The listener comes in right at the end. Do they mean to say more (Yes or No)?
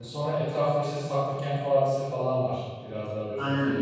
No